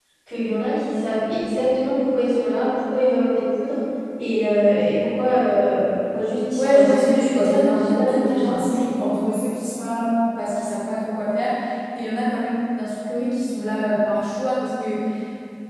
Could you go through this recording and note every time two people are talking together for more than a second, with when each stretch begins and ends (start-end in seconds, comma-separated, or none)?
6.5-9.1